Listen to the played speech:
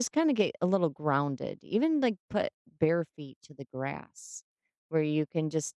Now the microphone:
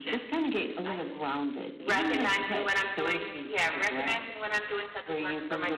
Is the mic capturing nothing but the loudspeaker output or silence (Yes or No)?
No